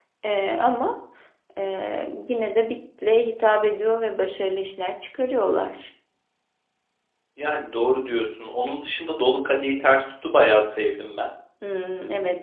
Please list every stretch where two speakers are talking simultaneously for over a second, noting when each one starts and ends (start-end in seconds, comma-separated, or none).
none